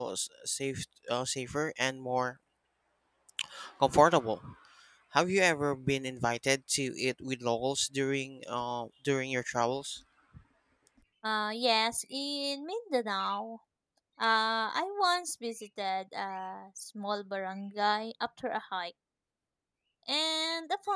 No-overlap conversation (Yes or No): Yes